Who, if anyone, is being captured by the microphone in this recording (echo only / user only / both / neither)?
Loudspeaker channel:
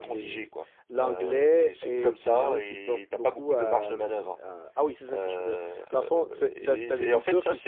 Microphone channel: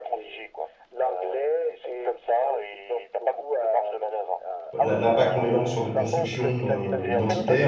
both